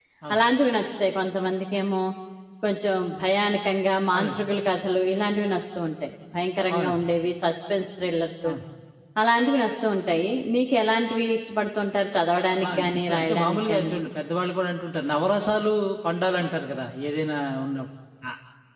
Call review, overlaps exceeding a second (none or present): present